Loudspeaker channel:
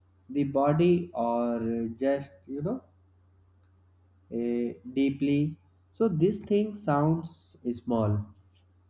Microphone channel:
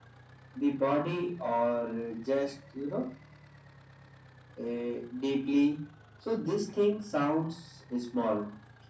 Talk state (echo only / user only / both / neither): echo only